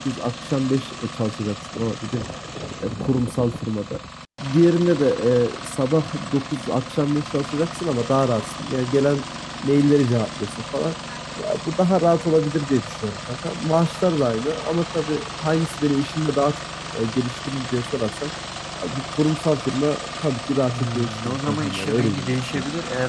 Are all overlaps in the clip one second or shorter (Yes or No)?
No